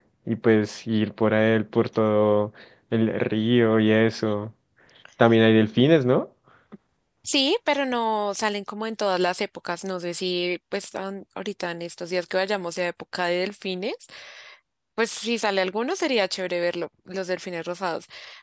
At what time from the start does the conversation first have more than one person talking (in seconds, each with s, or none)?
none